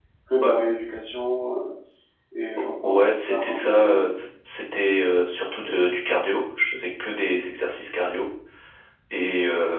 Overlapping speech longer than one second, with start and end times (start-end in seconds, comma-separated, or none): 2.8-4.1